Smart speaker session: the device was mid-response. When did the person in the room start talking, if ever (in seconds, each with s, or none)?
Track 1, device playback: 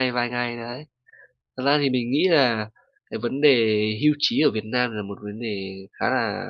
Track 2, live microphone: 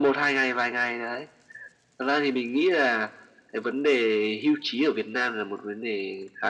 none